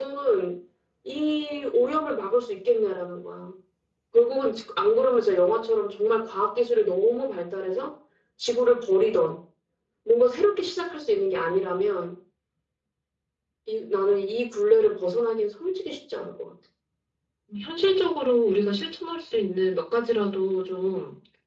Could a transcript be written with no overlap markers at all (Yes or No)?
Yes